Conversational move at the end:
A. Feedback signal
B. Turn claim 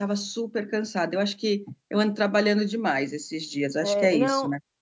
B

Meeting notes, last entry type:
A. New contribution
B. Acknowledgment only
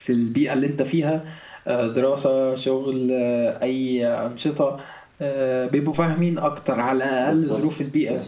A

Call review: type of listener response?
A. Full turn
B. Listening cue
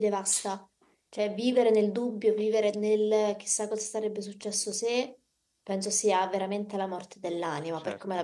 B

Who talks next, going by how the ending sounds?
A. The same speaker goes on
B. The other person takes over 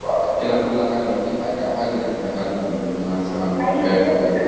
B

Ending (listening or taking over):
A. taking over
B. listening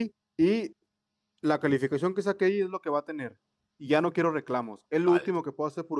B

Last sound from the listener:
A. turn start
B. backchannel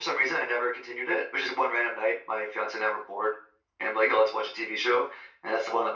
B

